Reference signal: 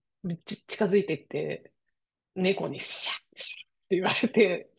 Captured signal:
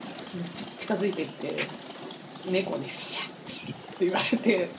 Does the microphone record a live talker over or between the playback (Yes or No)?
No